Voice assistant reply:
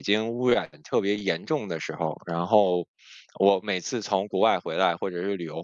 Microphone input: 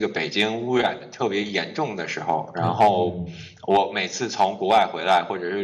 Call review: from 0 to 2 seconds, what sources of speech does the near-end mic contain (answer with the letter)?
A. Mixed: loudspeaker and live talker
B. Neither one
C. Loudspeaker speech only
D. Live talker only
C